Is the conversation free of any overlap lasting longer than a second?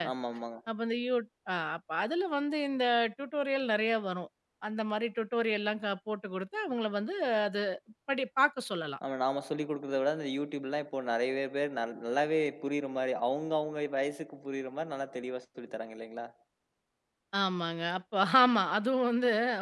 Yes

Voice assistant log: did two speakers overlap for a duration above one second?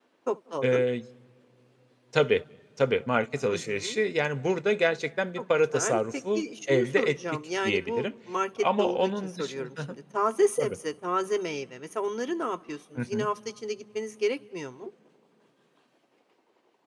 Yes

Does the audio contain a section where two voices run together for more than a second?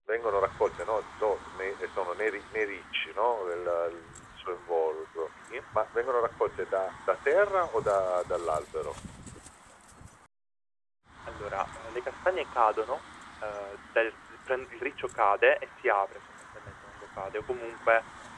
No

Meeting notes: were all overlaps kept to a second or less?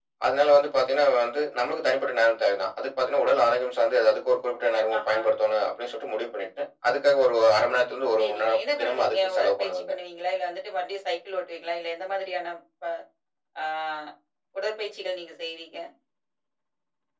No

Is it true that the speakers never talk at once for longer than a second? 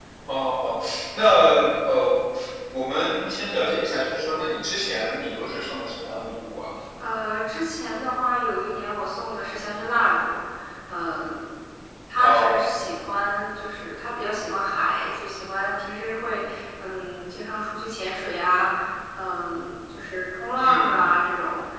Yes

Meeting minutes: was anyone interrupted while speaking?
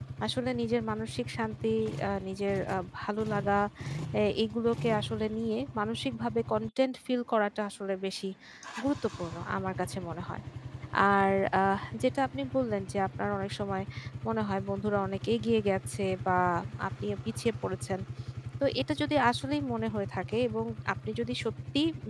No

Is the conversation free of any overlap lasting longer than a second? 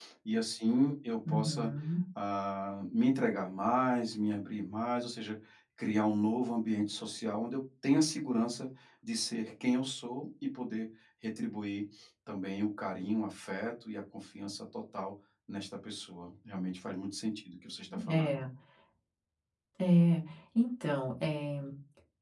Yes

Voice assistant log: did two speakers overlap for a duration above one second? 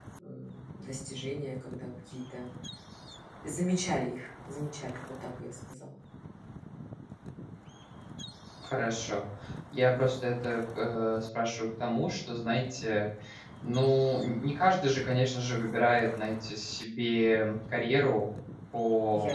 No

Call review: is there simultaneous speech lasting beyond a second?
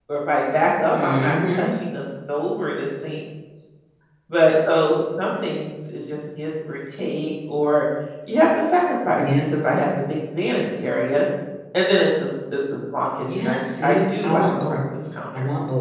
Yes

